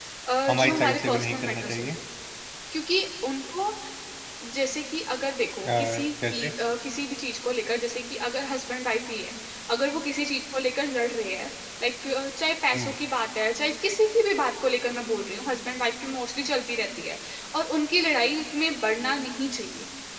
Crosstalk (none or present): present